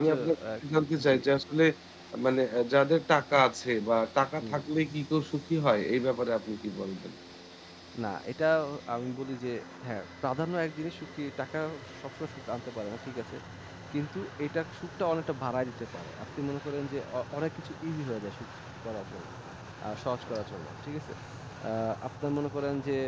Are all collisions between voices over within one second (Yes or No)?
Yes